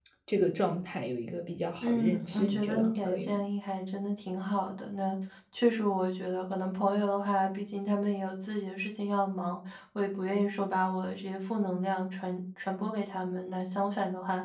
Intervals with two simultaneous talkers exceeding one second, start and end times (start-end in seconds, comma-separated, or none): 1.8-3.4